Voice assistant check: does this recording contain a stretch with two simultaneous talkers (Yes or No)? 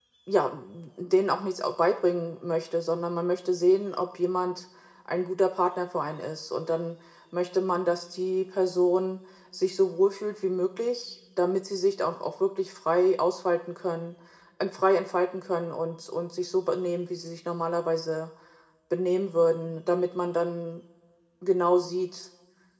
No